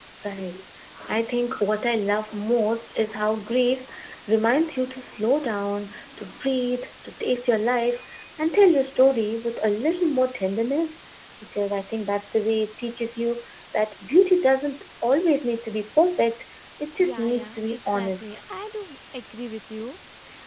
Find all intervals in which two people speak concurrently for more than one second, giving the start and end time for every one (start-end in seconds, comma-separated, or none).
17.0-18.4